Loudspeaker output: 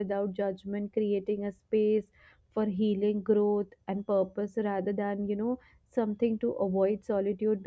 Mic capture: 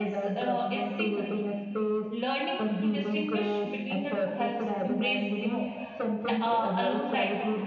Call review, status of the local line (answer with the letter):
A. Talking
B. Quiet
A